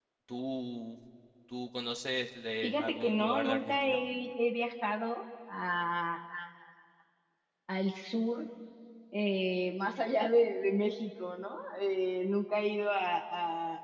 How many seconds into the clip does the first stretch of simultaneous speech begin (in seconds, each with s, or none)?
2.6 s